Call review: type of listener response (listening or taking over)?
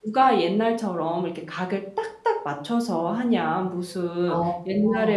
listening